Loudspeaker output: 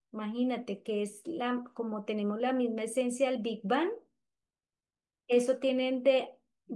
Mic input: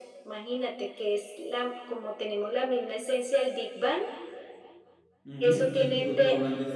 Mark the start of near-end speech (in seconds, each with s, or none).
5.2 s